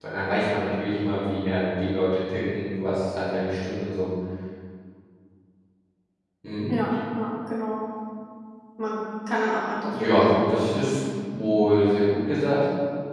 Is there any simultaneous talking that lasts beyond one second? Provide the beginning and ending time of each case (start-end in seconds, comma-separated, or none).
9.8-11.0